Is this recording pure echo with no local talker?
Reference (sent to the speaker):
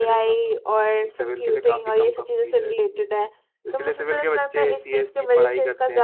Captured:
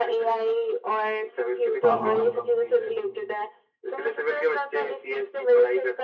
No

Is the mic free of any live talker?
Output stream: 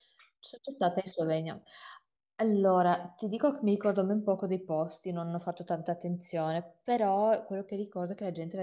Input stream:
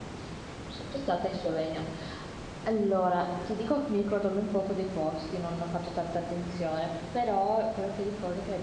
Yes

